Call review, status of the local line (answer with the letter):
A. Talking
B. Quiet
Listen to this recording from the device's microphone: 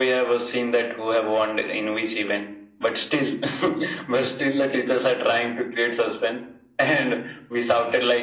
B